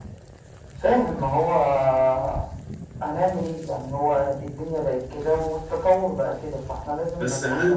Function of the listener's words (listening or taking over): taking over